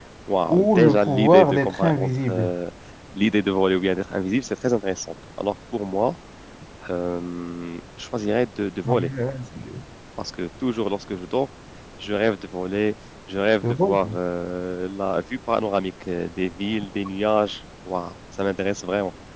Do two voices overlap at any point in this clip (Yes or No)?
Yes